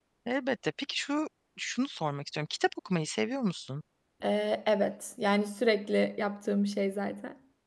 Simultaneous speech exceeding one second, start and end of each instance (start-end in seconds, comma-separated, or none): none